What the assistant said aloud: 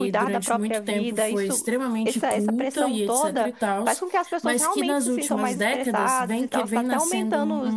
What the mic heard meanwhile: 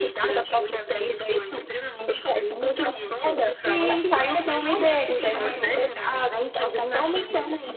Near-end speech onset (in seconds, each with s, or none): 3.6 s